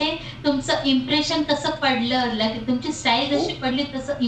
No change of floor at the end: Yes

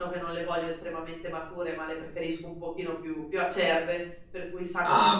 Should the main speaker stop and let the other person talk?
No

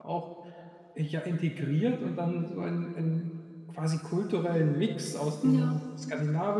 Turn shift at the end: No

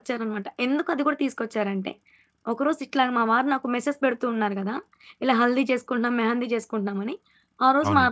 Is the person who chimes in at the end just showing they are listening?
Yes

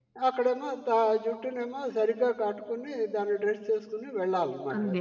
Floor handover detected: Yes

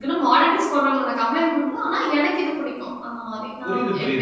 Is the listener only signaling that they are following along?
No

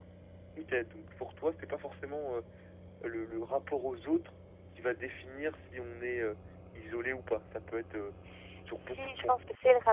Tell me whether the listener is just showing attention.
No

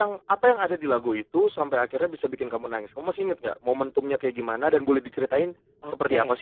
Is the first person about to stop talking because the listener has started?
Yes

